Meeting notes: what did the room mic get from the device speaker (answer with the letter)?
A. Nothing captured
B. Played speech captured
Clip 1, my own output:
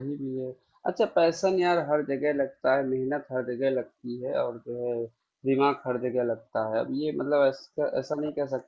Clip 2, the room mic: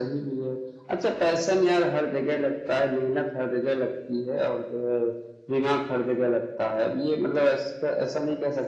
B